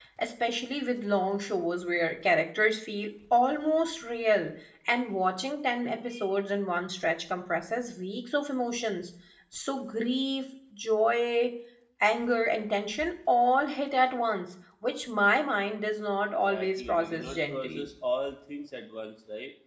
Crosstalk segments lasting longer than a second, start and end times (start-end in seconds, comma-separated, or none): 16.4-17.8